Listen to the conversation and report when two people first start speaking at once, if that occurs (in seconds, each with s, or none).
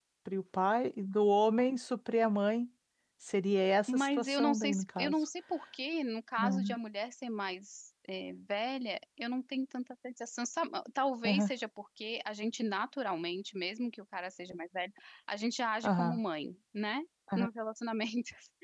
3.9 s